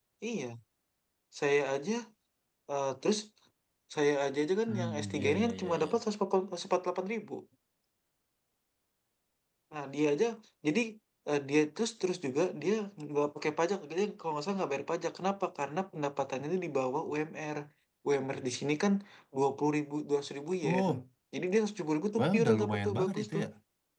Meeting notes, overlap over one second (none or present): present